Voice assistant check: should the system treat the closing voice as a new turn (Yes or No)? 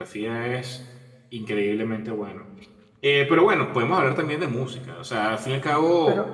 Yes